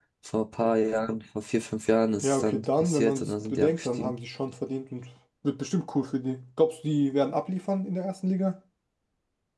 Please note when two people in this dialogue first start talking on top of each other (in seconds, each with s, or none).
2.2 s